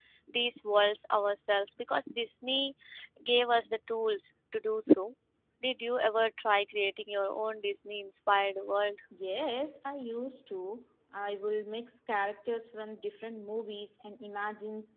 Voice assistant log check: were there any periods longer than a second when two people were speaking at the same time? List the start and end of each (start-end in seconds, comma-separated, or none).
none